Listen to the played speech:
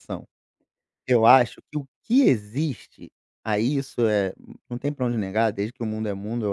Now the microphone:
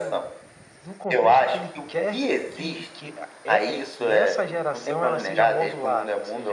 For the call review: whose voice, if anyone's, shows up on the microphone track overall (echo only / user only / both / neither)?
both